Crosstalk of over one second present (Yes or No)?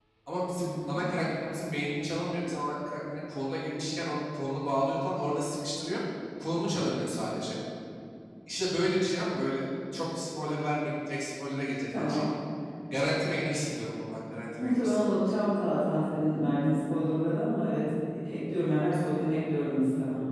No